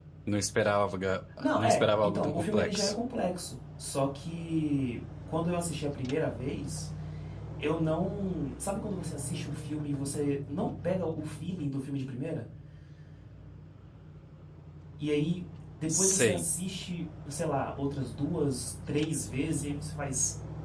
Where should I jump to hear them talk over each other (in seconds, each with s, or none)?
1.6 s